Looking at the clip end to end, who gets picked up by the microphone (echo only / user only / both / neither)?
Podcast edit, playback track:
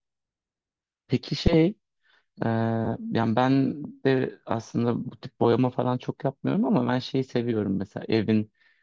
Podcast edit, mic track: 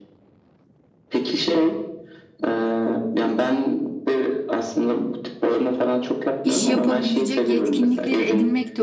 both